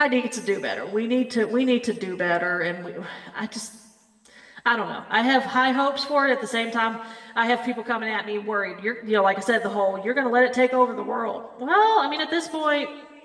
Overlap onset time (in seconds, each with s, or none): none